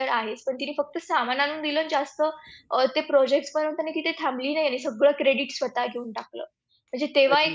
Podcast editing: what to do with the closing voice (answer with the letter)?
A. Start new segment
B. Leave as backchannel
B